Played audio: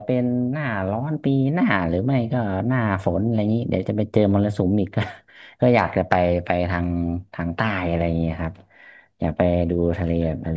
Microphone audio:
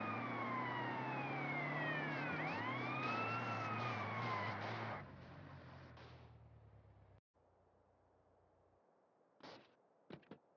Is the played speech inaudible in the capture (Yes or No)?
Yes